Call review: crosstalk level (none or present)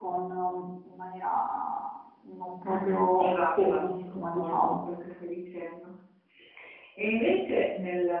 present